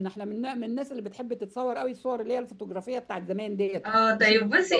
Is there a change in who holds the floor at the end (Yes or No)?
Yes